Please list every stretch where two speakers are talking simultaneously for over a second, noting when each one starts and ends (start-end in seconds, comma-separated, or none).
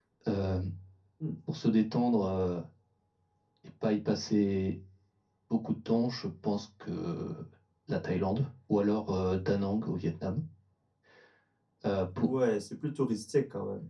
none